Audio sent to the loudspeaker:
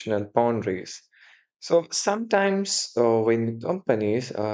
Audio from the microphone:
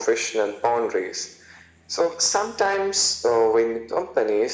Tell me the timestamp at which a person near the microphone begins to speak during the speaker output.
none

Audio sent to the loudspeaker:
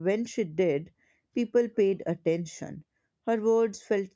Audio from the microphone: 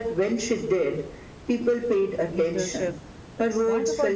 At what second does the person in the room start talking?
2 s

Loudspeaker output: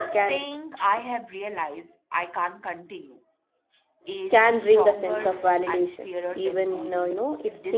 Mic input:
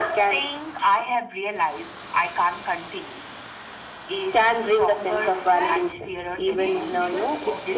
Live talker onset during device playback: 5 s

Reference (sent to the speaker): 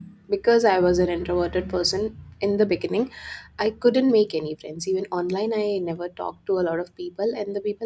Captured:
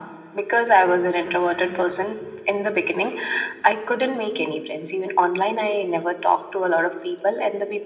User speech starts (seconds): none

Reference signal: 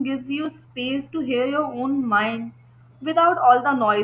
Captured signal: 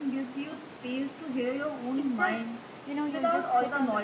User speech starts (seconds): 2 s

